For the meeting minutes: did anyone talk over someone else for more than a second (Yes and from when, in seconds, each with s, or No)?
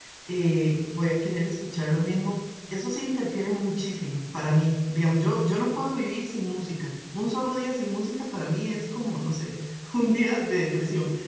No